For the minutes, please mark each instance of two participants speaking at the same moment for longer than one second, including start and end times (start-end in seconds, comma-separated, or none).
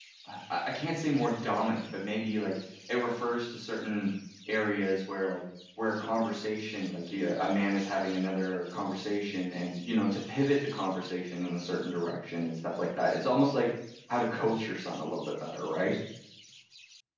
none